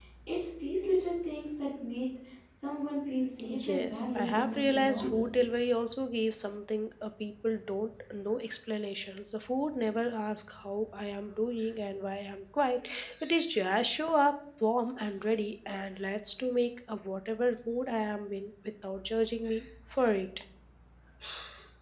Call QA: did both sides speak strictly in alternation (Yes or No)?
No